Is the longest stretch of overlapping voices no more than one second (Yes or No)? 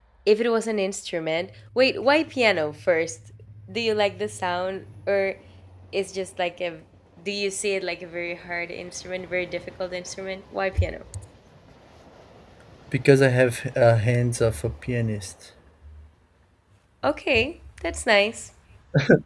Yes